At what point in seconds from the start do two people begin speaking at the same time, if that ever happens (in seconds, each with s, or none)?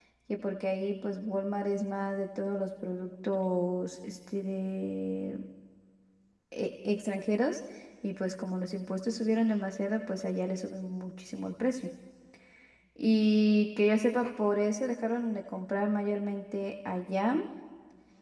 none